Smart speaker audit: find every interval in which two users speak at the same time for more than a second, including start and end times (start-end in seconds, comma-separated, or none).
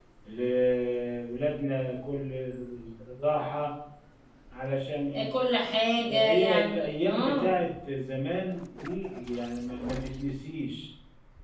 6.1-7.5